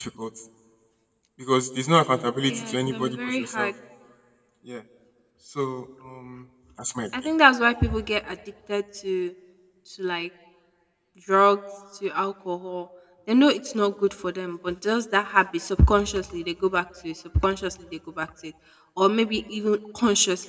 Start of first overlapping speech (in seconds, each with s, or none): 2.5 s